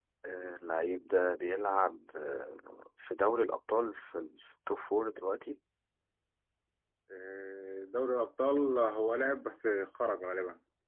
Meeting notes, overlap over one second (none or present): none